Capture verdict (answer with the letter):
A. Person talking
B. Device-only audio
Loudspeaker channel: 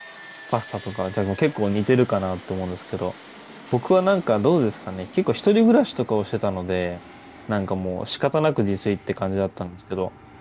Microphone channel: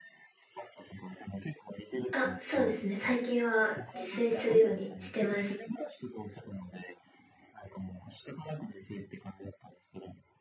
A